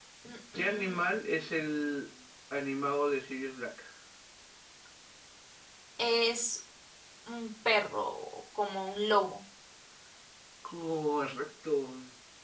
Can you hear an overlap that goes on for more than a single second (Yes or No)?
Yes